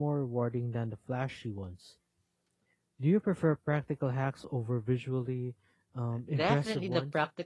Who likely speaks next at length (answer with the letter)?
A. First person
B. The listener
B